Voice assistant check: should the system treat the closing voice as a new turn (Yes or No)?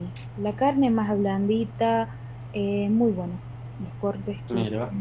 No